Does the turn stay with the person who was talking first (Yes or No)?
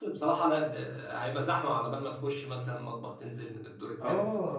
No